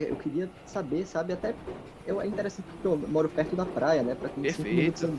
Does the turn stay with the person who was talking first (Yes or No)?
Yes